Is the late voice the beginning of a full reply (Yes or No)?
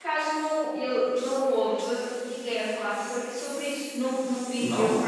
No